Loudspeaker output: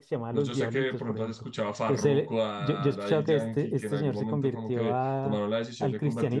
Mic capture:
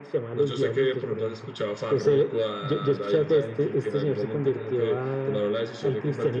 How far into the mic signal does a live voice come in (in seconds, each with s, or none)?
none